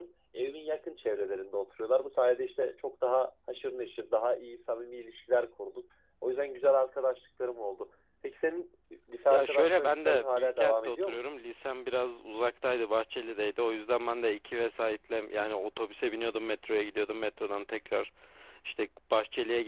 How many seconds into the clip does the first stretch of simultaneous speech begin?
9.3 s

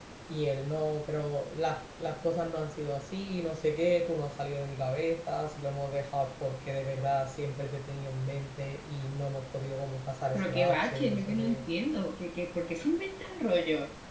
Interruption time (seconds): 10.3 s

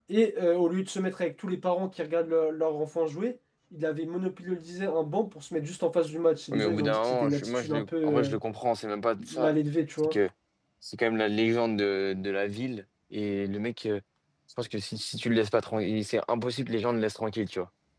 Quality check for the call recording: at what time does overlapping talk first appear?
6.5 s

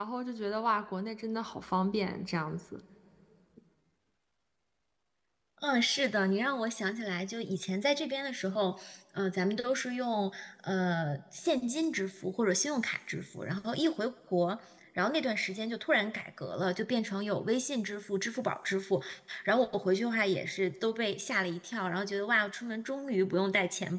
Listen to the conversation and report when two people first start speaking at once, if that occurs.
none

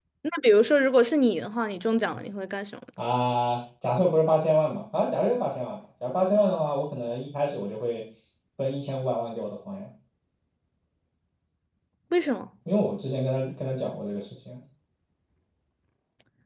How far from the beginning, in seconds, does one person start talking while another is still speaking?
none

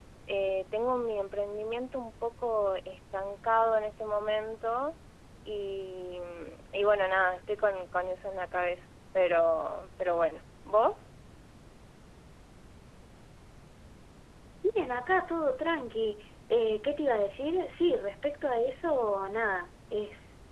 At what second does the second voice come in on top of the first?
none

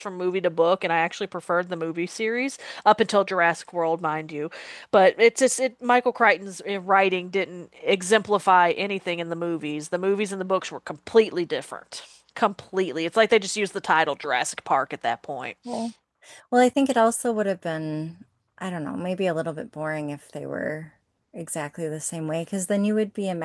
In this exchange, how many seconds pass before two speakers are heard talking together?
none

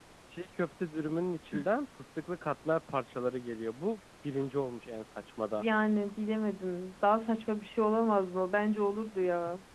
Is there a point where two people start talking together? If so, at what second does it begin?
none

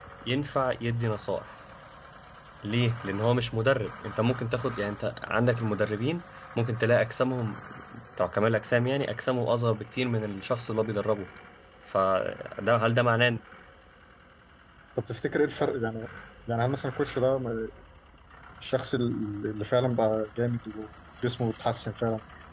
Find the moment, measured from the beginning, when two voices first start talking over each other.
none

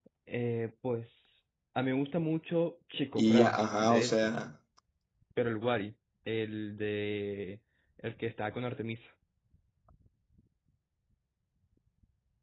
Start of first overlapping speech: 3.2 s

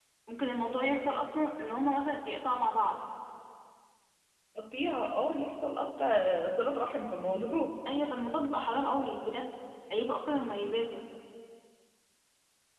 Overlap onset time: none

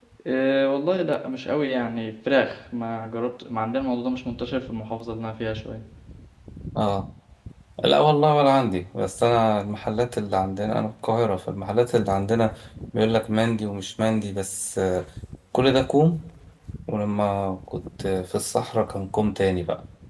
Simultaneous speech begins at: none

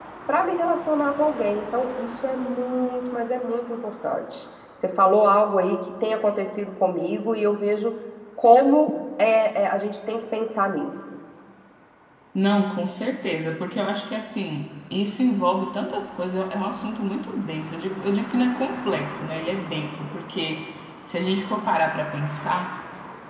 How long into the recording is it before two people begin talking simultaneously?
none

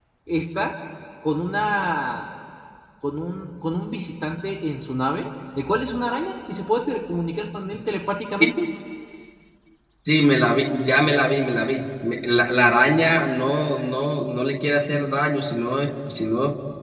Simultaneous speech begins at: none

